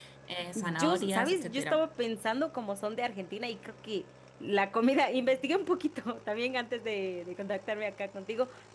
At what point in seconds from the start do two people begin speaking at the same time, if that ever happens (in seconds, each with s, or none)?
0.6 s